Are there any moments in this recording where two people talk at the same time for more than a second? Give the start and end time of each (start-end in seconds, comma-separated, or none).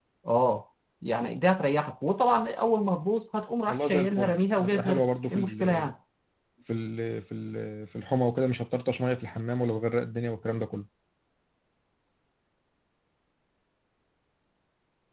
3.7-5.9